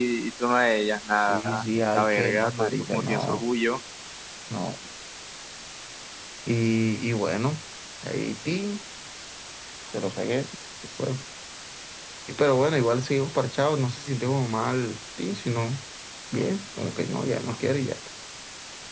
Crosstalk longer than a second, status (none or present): present